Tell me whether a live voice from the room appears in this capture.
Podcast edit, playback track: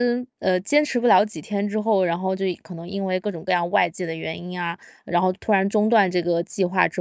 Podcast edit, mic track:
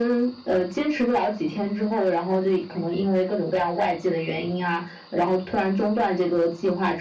No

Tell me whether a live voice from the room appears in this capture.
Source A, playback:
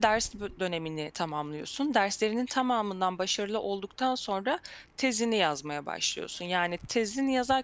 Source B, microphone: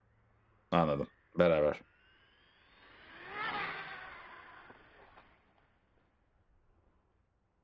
Yes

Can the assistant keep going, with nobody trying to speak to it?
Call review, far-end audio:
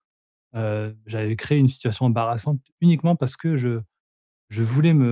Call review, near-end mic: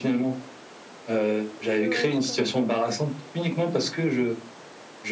No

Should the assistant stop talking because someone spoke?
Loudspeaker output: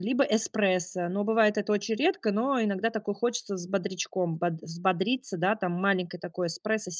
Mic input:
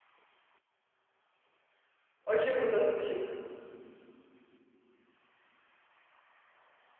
Yes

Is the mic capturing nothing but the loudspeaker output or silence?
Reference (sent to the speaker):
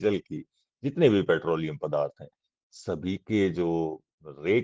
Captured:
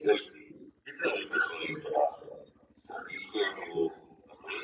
Yes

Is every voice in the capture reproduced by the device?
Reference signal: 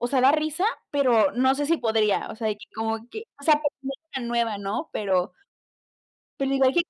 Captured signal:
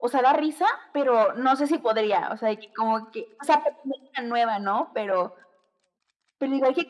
Yes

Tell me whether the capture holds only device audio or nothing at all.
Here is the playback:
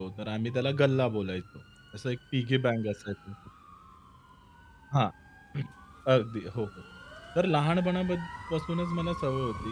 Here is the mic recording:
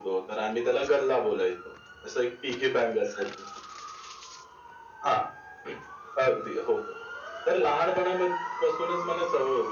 Yes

